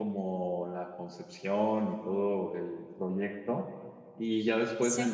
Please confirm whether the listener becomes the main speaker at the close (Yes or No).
No